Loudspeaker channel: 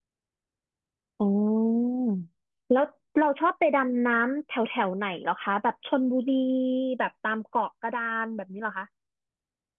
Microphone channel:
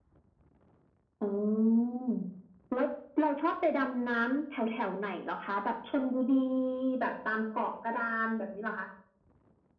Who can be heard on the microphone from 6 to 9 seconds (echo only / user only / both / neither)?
echo only